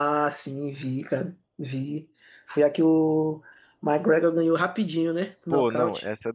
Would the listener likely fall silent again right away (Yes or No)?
No